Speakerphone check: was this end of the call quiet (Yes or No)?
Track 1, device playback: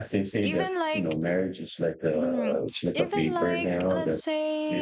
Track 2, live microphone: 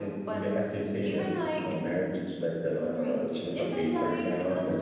Yes